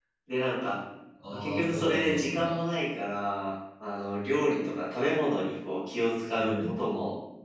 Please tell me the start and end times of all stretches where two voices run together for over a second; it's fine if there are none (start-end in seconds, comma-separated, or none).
1.3-2.7